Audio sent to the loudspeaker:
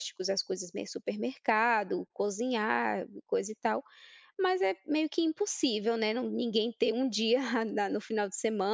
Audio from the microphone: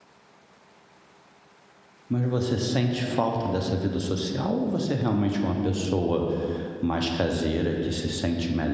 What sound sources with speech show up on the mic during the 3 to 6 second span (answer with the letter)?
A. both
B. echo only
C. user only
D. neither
C